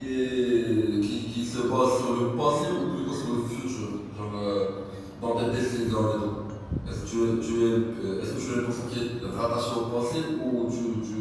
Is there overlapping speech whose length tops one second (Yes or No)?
No